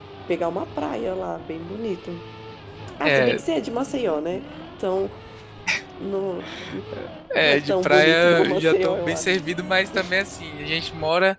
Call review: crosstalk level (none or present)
present